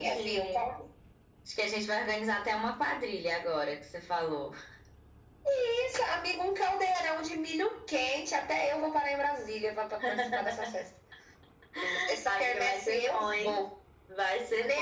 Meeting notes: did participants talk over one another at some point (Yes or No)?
Yes